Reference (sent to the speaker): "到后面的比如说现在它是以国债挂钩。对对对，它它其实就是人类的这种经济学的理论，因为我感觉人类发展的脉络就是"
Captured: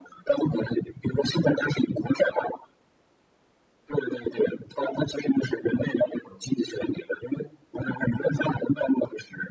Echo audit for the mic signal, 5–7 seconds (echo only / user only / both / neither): echo only